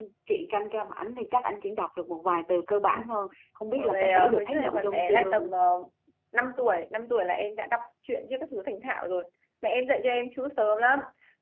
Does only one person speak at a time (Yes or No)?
No